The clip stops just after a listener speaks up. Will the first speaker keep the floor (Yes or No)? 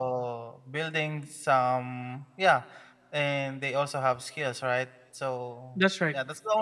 Yes